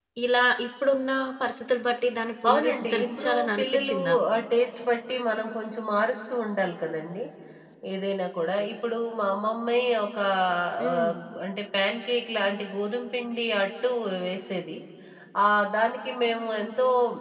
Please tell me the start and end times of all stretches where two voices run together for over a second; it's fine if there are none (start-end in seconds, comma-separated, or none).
2.5-4.0